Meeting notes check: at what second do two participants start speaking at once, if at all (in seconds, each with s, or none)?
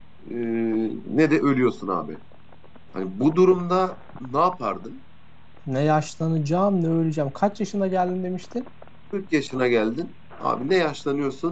none